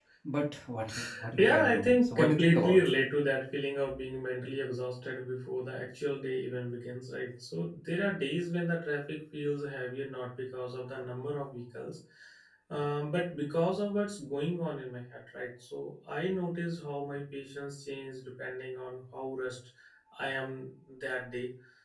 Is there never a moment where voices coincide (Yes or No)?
No